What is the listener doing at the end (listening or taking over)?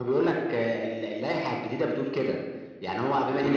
listening